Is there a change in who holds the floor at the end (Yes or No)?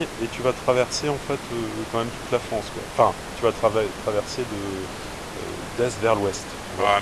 Yes